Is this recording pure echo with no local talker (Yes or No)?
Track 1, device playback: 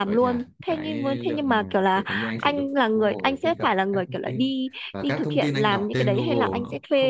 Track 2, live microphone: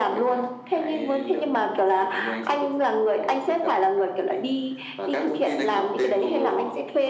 Yes